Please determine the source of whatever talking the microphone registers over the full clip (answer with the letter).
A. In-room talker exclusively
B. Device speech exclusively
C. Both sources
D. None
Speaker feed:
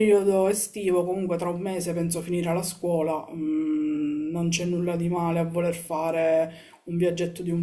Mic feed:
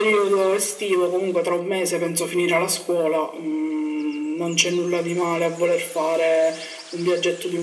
B